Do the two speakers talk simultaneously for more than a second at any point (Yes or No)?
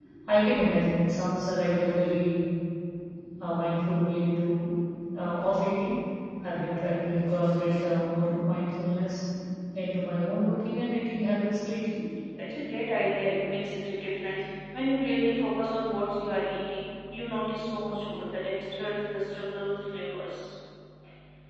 No